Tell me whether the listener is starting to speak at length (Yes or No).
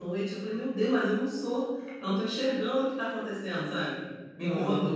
Yes